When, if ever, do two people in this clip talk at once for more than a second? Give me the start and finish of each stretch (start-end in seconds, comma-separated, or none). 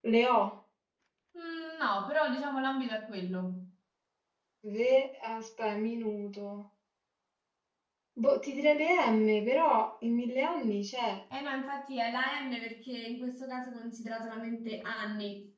none